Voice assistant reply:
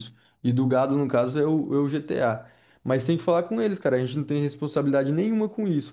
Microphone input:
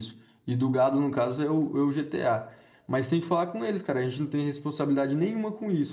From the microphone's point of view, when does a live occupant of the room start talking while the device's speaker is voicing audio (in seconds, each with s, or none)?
none